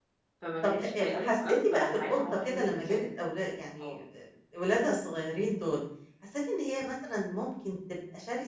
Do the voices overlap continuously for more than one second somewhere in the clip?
Yes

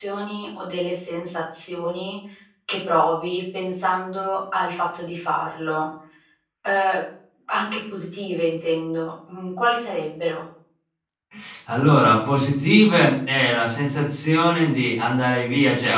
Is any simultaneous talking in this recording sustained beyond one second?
No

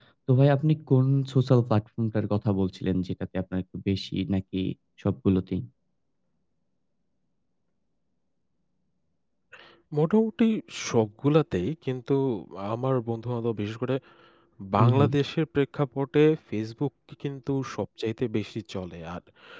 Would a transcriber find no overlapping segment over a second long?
Yes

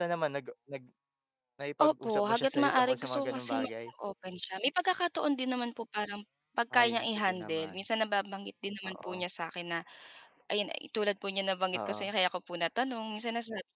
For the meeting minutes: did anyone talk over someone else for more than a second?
Yes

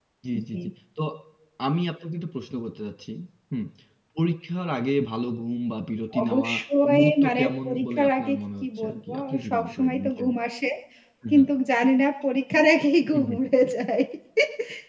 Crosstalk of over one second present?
Yes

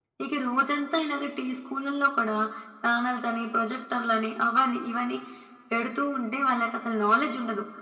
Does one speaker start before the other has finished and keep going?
No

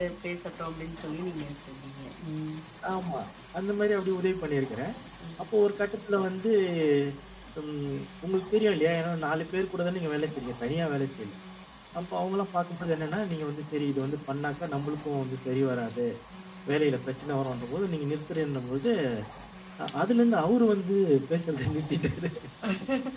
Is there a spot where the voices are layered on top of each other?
No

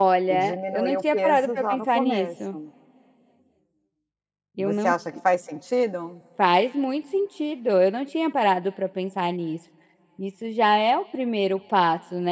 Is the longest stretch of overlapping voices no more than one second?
No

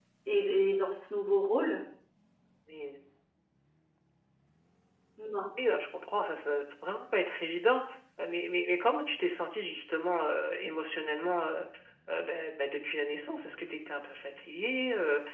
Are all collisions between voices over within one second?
Yes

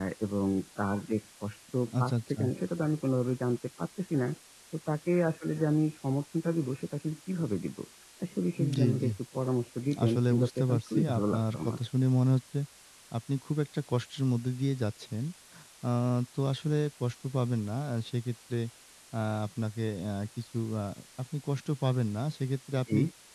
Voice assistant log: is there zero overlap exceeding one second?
No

